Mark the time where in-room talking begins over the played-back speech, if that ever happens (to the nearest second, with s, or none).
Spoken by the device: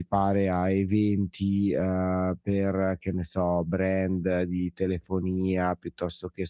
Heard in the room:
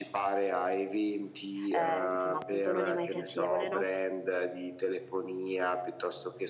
2 s